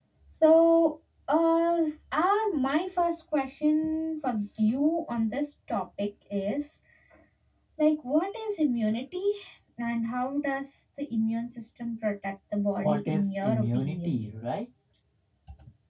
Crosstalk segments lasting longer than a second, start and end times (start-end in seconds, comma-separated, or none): 12.8-14.2